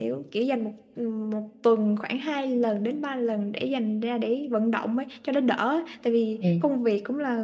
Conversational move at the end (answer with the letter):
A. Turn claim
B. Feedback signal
B